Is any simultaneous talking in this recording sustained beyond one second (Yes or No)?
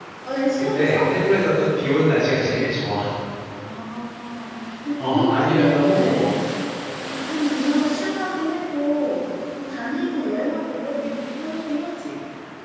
Yes